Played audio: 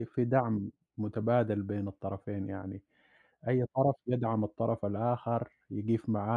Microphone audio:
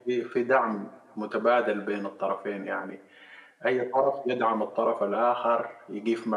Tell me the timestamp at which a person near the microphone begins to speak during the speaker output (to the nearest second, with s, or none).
none